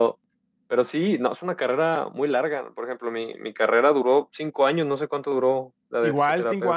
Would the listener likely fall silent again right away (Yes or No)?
No